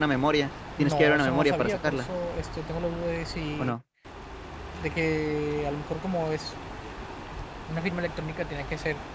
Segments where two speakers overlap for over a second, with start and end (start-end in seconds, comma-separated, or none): 0.8-2.1